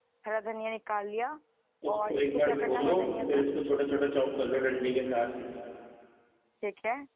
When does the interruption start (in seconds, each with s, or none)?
1.9 s